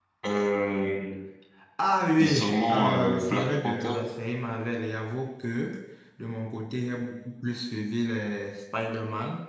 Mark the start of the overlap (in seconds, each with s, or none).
2.2 s